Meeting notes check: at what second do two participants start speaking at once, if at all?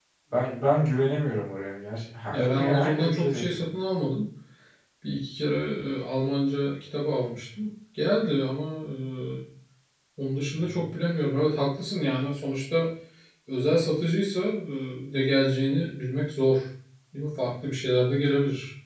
2.3 s

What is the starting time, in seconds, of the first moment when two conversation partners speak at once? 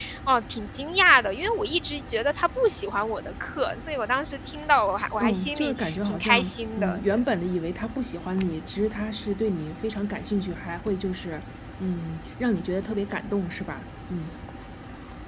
5.2 s

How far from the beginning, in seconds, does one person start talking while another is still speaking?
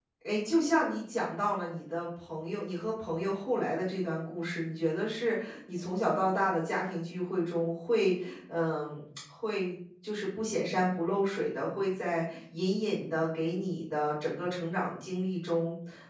none

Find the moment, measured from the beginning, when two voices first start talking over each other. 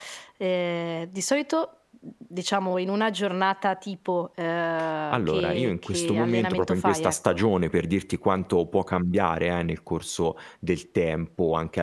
5.1 s

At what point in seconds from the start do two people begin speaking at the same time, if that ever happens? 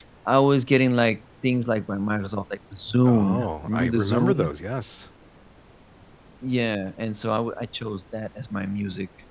3.0 s

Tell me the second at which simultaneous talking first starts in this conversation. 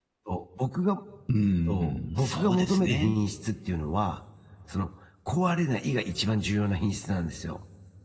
1.7 s

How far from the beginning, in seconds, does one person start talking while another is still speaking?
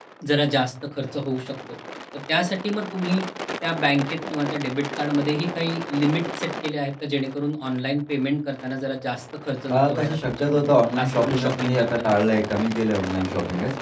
9.7 s

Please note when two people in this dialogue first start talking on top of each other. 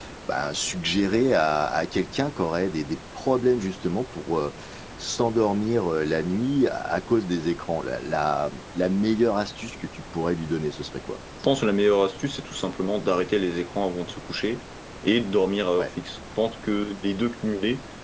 none

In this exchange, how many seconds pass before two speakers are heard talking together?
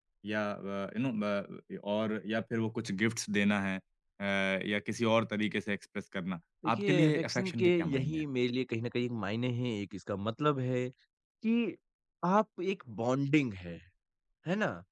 6.6 s

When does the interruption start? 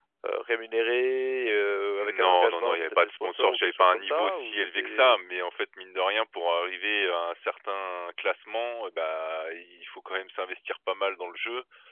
2.0 s

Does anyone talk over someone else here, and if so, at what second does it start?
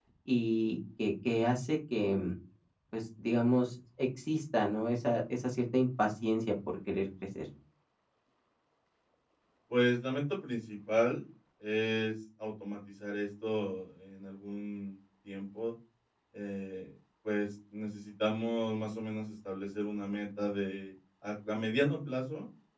none

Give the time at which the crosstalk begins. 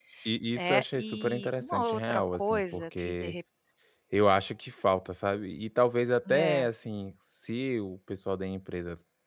0.6 s

